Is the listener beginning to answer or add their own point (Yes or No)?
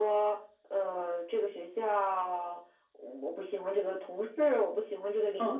Yes